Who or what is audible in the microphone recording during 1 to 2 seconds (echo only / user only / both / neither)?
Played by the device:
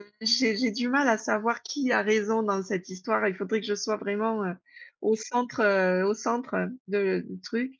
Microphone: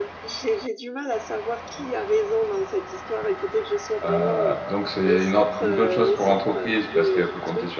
echo only